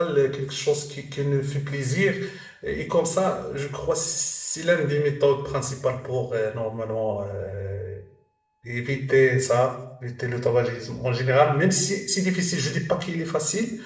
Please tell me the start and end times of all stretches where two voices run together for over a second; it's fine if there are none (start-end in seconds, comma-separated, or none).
none